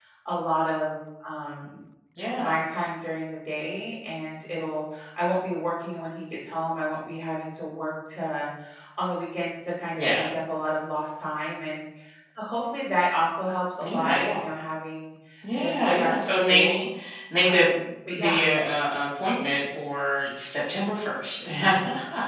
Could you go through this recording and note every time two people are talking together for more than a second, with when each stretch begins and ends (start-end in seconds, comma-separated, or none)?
15.5-16.8